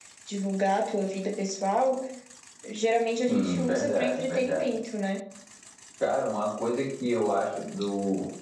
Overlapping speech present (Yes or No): Yes